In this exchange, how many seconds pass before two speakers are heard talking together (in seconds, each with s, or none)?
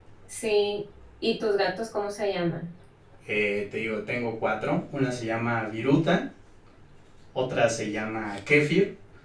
none